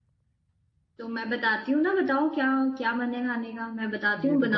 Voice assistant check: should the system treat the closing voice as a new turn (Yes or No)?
Yes